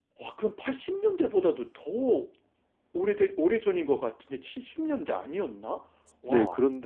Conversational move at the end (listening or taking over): taking over